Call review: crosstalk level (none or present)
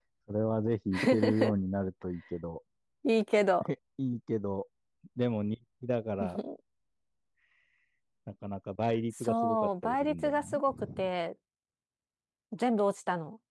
present